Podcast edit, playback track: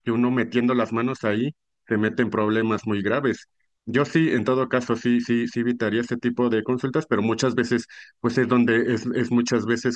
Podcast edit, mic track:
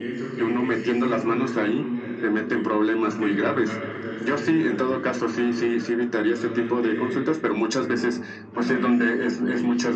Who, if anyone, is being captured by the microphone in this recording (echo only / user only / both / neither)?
both